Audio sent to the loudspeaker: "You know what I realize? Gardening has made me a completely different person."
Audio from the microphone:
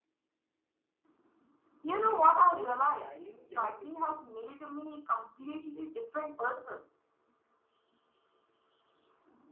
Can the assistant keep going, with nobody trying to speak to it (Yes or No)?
No